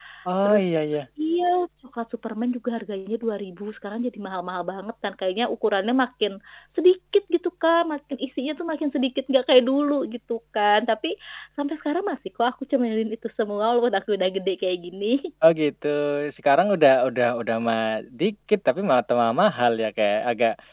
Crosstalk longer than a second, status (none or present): none